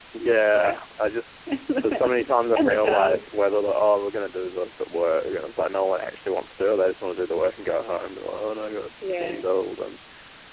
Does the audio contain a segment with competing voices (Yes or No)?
Yes